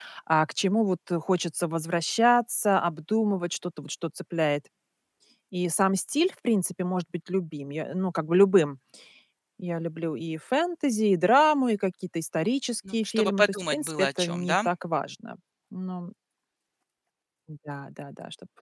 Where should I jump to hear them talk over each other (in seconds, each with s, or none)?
12.8 s